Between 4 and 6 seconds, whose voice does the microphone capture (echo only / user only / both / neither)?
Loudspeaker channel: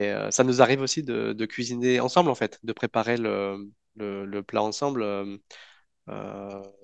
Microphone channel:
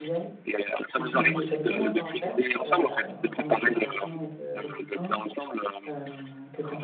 both